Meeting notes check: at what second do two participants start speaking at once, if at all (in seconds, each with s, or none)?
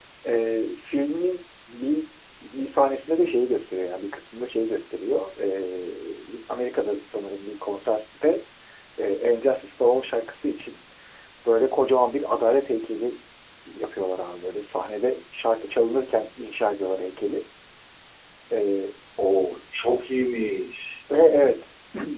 none